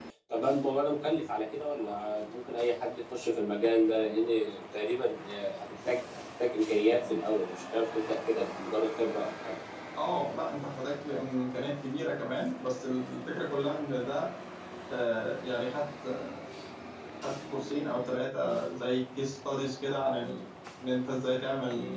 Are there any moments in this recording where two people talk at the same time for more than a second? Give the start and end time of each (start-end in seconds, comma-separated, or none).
none